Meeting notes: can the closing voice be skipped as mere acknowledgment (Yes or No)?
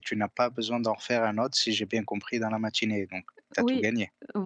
No